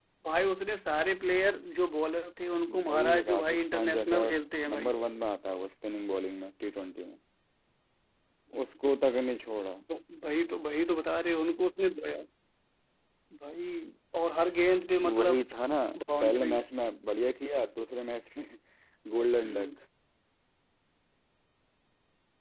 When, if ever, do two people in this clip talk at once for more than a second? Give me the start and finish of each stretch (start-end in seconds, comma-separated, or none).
2.9-4.2